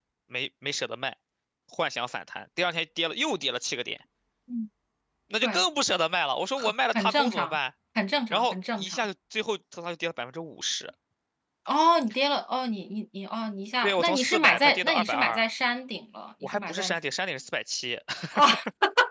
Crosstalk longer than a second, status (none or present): present